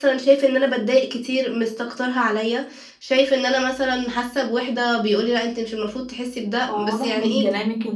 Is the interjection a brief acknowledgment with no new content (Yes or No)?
No